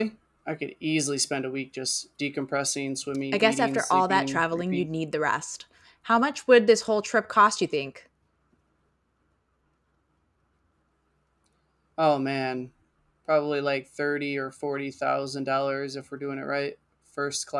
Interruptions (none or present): present